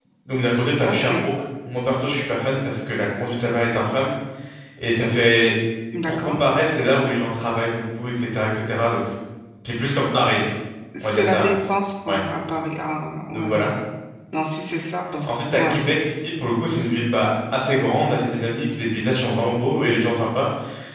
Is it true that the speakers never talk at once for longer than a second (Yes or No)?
Yes